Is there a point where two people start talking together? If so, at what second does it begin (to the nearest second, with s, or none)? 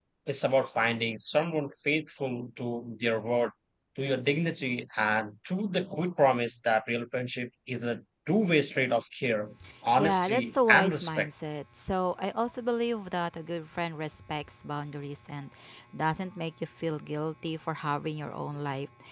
10 s